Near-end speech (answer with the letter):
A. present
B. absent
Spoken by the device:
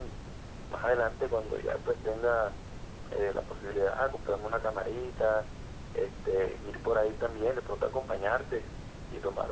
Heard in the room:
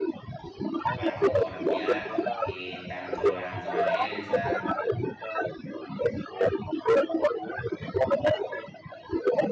A